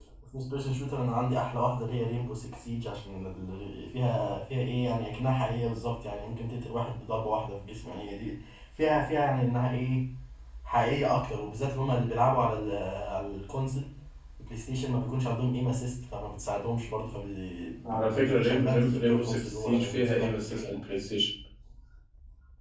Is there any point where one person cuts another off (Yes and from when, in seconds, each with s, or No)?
Yes, from 17.8 s